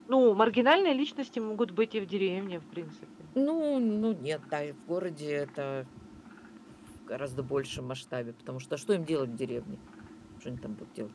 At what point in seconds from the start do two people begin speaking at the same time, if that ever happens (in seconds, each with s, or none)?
none